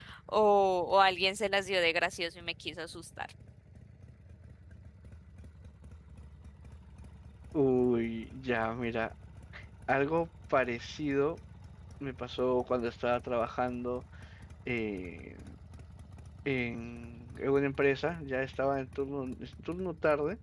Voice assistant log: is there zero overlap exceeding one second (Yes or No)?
Yes